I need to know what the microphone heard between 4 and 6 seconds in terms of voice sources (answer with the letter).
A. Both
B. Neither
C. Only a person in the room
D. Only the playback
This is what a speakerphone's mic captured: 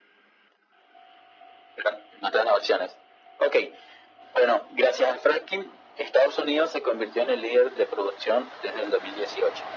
D